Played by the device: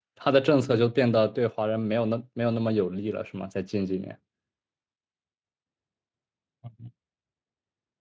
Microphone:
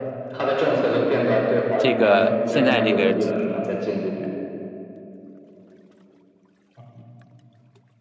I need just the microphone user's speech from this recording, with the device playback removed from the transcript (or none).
这个现在这个